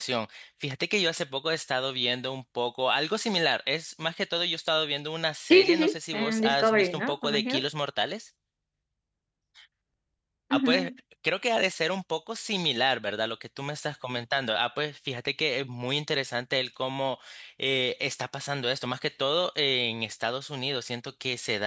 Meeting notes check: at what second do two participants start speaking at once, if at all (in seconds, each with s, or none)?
5.5 s